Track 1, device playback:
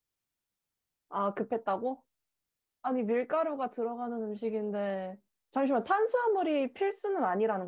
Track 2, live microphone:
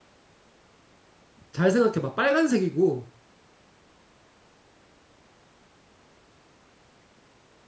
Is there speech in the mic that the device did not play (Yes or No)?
Yes